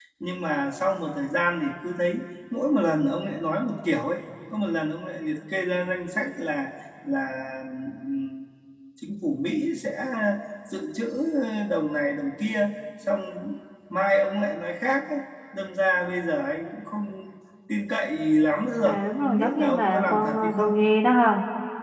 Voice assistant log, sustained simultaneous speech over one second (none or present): present